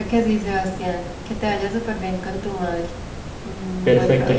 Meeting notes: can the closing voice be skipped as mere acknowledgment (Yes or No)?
No